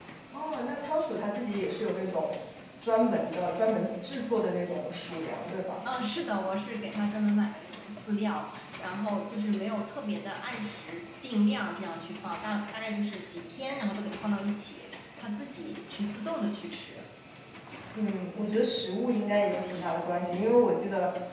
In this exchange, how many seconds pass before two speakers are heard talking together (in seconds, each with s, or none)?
none